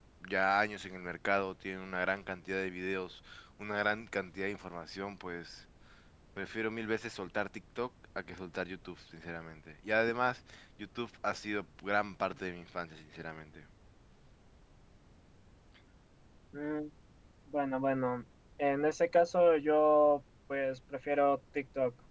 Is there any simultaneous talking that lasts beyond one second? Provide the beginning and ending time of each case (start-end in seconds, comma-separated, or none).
none